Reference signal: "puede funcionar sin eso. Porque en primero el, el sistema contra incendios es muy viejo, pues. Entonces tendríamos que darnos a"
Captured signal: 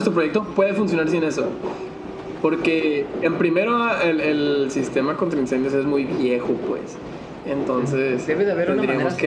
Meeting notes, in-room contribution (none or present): present